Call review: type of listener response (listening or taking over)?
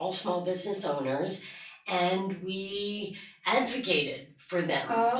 listening